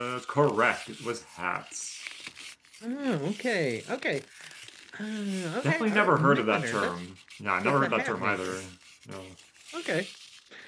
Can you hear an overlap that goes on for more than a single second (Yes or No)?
Yes